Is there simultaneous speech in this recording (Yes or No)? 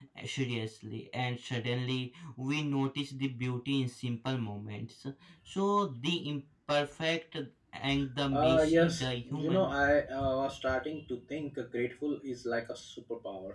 Yes